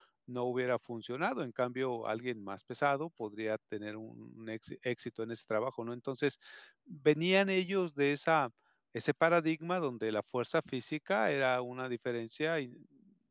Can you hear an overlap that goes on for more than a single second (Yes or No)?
No